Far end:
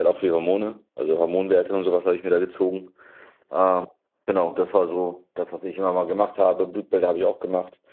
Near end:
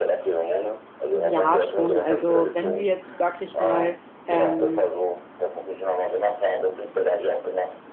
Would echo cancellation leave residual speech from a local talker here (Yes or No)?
Yes